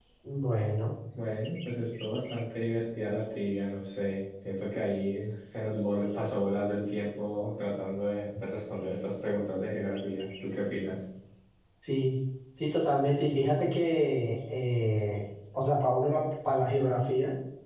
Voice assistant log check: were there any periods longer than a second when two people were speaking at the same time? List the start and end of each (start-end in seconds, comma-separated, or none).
none